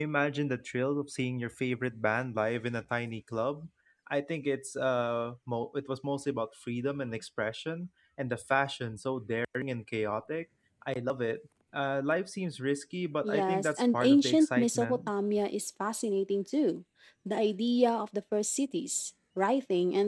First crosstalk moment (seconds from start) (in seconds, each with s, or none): 13.2 s